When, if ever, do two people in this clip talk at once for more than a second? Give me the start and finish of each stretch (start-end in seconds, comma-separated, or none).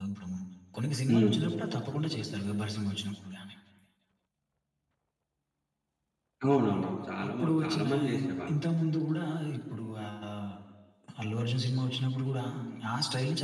6.7-8.6